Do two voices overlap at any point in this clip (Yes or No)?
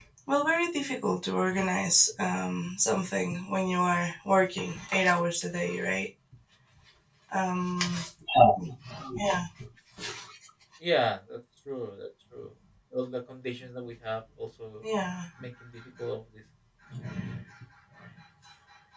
No